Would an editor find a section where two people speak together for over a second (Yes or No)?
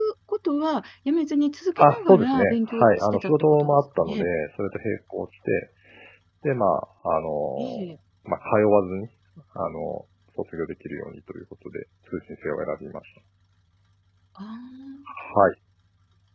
Yes